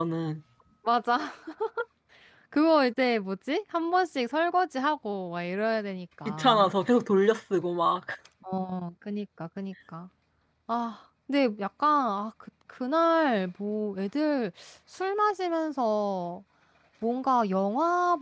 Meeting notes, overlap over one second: none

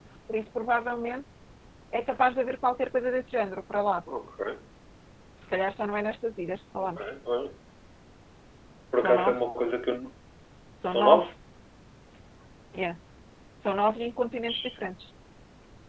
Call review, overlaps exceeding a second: none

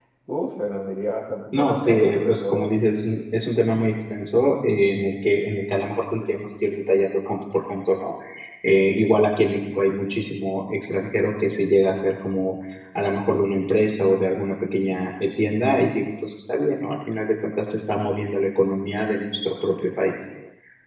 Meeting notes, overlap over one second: present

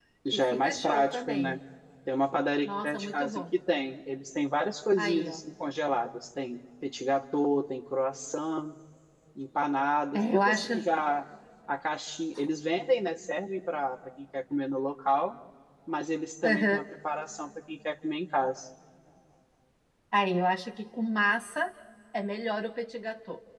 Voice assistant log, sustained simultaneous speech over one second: present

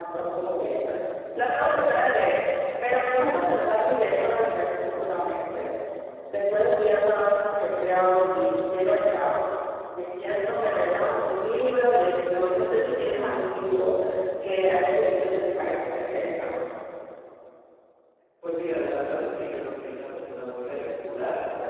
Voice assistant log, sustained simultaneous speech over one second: none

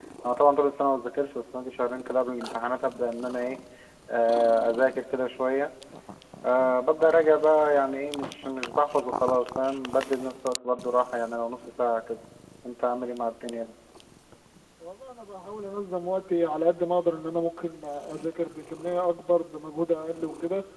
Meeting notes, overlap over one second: none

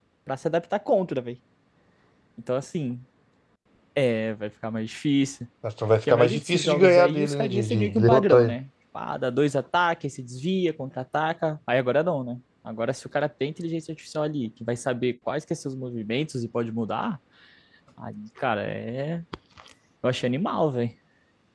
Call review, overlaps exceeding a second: present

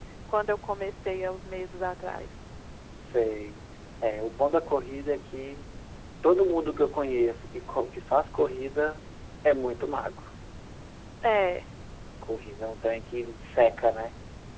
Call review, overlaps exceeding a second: none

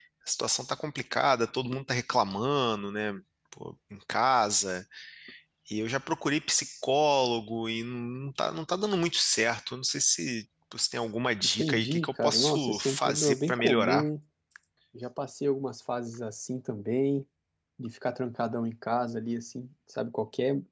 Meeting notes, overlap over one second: present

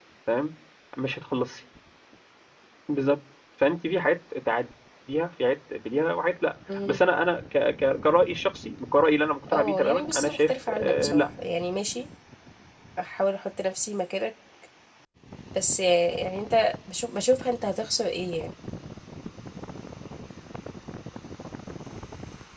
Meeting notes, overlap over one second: present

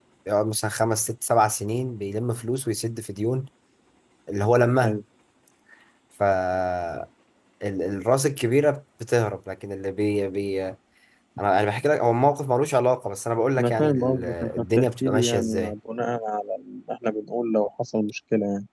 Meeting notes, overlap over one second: present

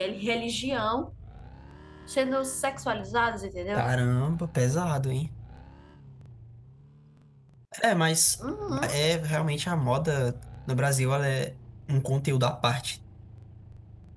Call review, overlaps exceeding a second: none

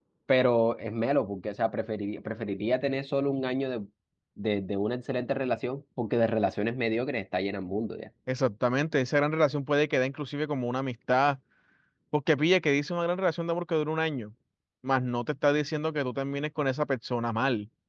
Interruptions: none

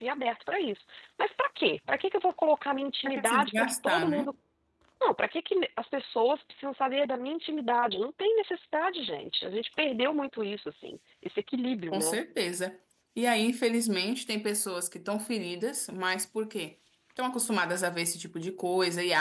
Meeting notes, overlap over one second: present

